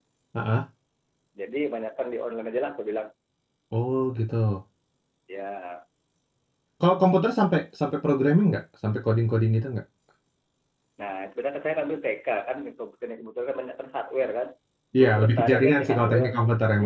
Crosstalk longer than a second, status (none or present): present